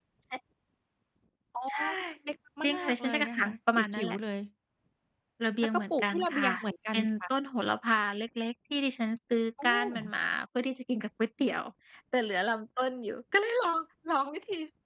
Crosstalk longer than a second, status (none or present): present